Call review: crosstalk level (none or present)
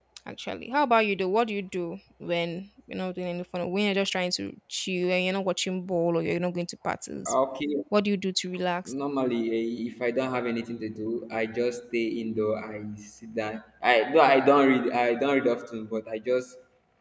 none